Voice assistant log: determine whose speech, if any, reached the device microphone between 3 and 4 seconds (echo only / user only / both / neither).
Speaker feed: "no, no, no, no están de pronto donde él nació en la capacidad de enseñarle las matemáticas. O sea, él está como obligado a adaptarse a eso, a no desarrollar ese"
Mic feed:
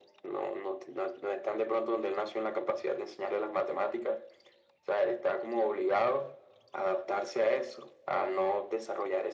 echo only